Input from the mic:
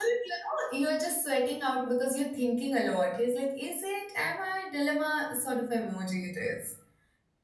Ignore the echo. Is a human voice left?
Yes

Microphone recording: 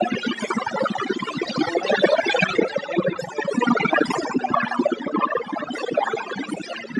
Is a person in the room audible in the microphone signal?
No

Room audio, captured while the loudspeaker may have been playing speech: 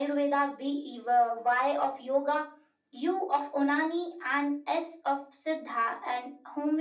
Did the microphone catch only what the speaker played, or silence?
Yes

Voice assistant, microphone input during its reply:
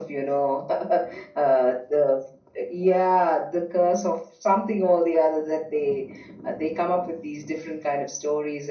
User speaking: No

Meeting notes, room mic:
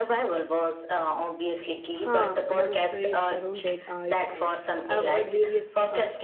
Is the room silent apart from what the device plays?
No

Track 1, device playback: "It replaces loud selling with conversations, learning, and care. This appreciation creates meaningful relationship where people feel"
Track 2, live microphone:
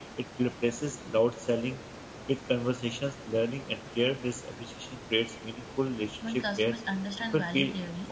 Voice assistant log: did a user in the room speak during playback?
Yes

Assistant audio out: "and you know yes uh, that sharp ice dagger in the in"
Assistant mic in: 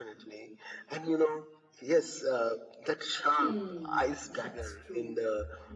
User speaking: Yes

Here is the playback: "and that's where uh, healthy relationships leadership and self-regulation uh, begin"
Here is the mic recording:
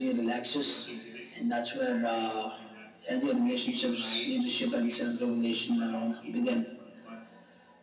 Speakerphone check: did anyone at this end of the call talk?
Yes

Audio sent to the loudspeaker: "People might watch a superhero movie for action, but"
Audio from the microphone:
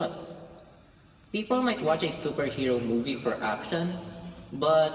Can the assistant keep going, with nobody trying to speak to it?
Yes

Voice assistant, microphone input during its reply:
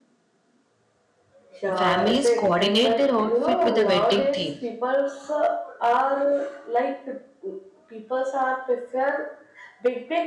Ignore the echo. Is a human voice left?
Yes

